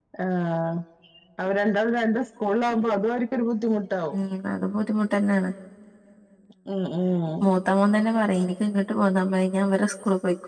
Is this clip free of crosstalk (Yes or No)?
Yes